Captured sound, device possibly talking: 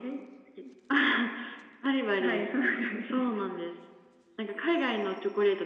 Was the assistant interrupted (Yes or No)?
No